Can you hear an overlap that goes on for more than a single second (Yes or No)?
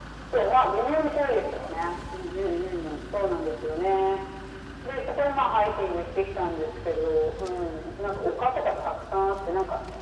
No